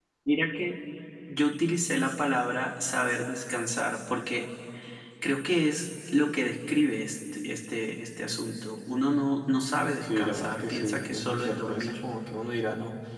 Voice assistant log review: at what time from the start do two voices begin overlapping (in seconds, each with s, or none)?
10.0 s